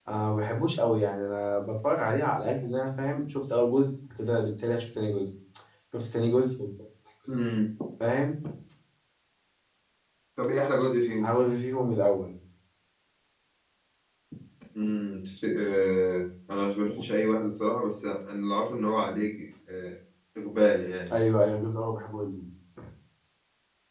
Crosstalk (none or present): none